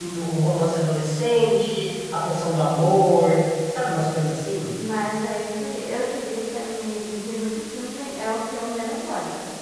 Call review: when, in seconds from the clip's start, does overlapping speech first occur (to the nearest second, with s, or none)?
none